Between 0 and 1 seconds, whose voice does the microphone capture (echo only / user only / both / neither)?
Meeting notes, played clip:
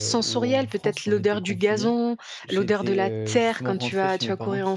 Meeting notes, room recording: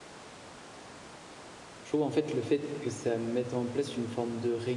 neither